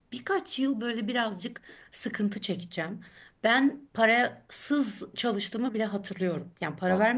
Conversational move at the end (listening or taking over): listening